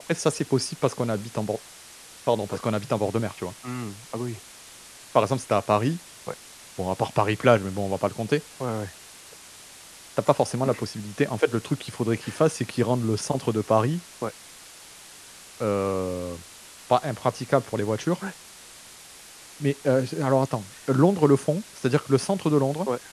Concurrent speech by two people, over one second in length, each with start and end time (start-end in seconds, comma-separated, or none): none